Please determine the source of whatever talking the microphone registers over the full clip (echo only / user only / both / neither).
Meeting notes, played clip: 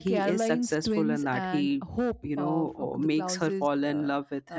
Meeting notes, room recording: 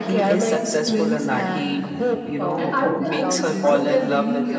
both